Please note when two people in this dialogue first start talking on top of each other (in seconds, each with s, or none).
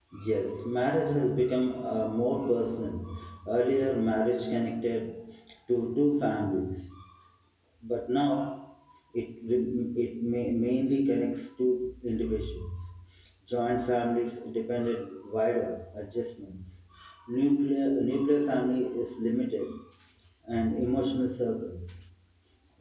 none